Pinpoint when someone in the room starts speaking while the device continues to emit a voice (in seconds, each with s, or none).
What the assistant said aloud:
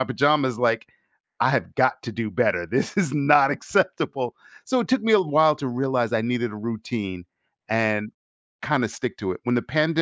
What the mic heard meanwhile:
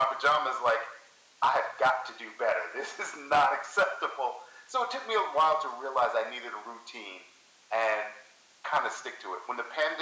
none